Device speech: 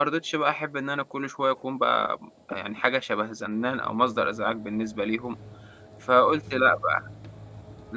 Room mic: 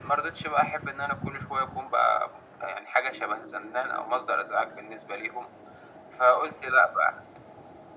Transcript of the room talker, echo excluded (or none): none